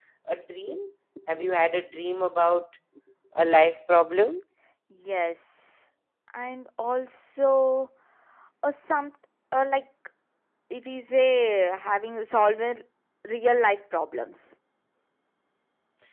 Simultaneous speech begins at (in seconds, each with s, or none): none